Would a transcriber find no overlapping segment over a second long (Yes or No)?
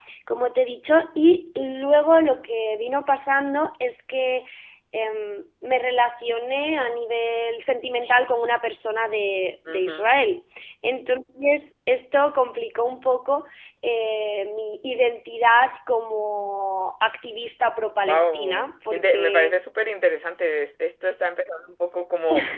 No